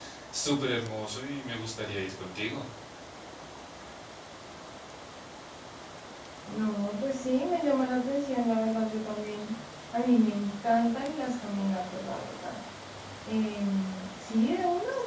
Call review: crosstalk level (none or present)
none